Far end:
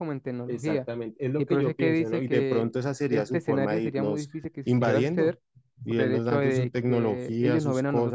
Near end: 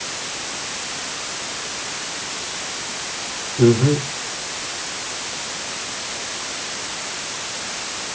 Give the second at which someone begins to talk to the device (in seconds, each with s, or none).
3.6 s